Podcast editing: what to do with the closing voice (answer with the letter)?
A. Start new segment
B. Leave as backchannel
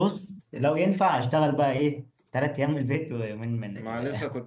A